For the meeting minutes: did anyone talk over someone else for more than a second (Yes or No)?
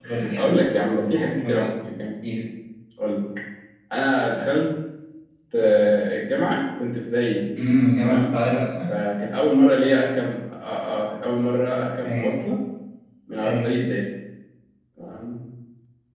No